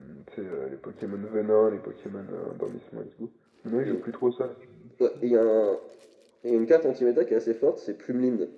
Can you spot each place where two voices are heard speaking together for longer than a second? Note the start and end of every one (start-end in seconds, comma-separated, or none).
none